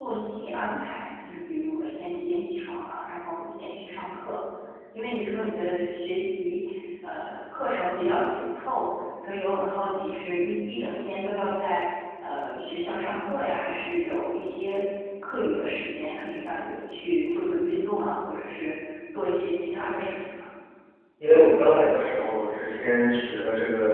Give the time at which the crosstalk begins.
none

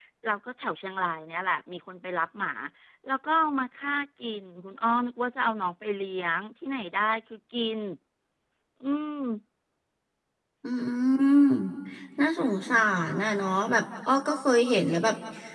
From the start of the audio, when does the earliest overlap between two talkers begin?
none

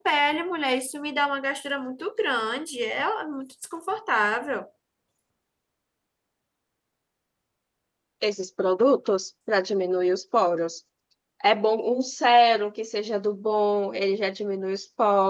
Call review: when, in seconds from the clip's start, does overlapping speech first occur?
none

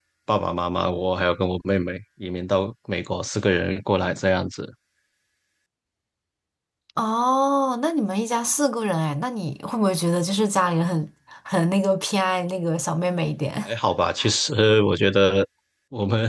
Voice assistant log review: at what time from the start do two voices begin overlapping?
none

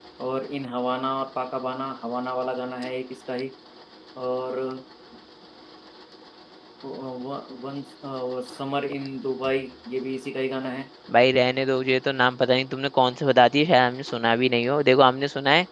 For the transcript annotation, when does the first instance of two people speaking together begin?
none

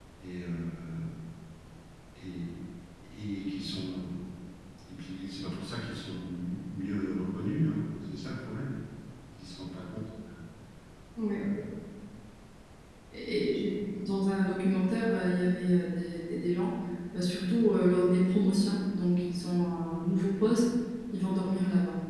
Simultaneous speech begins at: none

